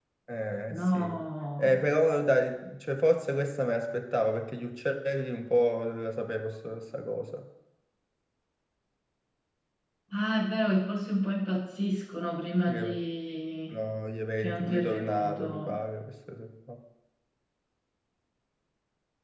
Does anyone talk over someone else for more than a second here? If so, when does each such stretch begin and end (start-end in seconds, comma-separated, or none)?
14.4-15.8